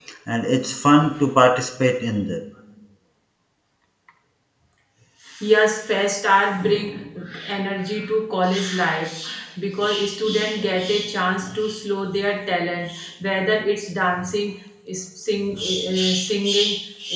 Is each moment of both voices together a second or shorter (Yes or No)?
Yes